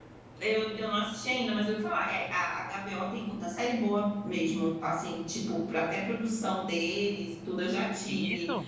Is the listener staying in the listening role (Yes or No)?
Yes